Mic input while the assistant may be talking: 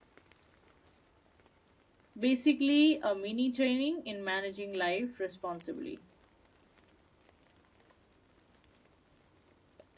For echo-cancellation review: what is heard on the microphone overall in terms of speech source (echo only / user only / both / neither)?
user only